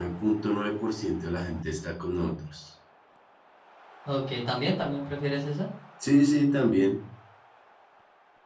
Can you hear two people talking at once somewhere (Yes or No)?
No